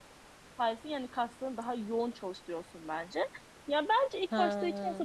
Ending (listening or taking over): listening